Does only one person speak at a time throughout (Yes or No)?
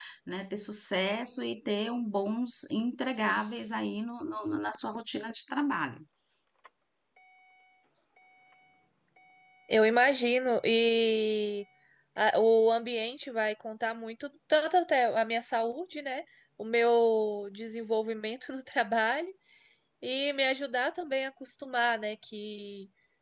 Yes